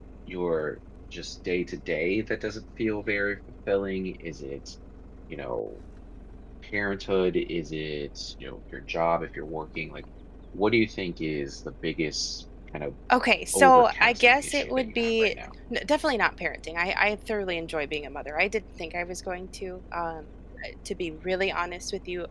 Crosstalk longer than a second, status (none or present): present